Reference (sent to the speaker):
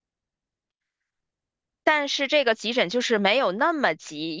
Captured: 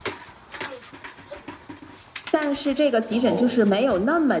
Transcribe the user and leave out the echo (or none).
然后，